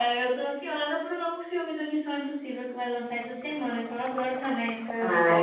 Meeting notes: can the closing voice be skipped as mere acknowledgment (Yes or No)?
No